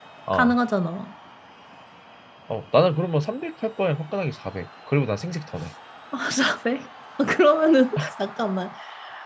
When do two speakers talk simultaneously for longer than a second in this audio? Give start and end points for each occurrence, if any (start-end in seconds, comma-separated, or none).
none